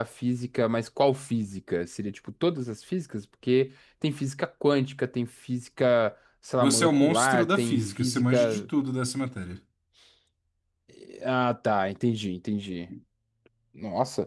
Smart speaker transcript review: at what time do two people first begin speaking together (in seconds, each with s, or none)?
6.5 s